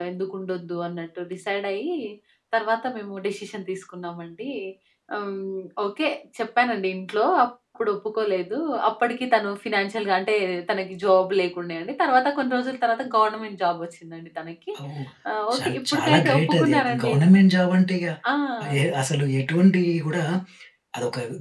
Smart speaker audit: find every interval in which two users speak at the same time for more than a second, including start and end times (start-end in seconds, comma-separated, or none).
15.6-17.1